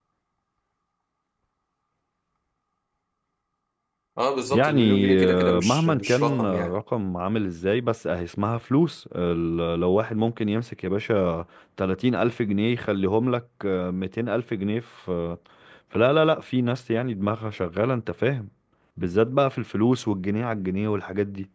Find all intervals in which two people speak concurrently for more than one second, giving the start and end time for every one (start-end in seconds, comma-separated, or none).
4.5-6.8